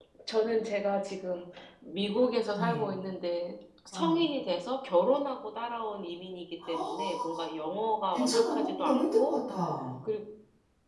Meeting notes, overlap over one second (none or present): present